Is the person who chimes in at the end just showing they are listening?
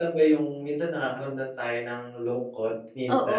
No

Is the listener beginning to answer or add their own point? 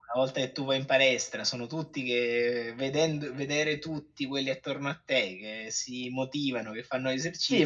Yes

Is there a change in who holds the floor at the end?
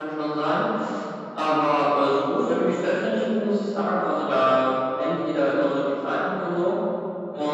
No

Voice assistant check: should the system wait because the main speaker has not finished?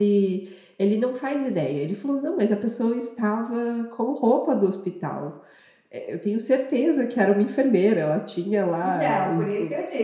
No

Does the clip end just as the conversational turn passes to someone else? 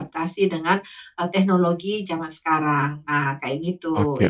Yes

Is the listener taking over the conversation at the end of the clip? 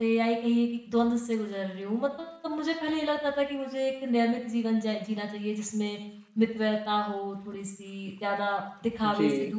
No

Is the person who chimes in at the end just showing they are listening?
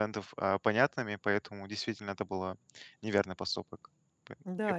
No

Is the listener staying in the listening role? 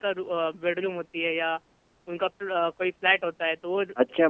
No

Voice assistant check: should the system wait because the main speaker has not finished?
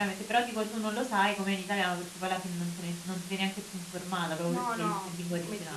No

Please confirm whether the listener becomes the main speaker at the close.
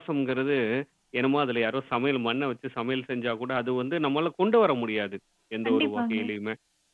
No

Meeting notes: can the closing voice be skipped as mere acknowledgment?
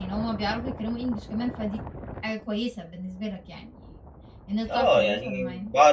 No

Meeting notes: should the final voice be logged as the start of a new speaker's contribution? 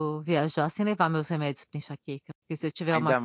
Yes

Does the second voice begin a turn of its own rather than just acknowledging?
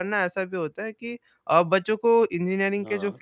No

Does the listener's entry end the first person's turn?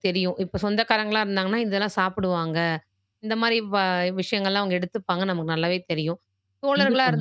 No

